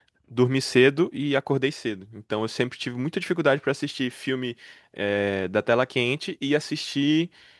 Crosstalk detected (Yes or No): No